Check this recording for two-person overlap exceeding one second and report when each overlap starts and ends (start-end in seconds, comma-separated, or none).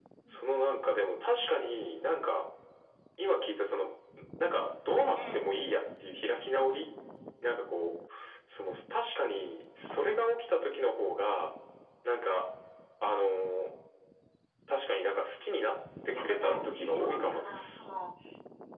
16.1-17.9